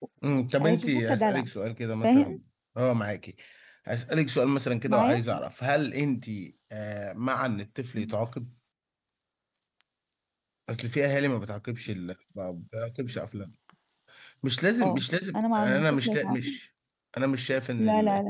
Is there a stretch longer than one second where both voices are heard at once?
Yes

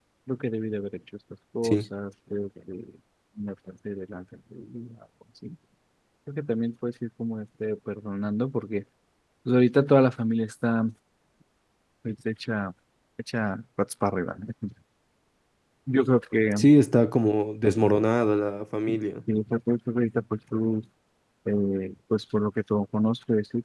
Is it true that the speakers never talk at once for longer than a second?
Yes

